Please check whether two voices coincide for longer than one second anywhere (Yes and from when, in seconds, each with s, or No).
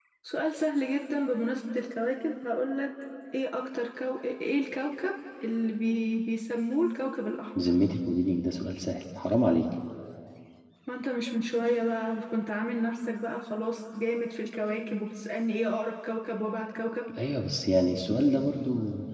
No